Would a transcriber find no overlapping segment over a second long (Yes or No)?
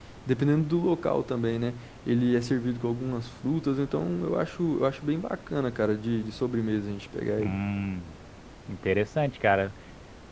Yes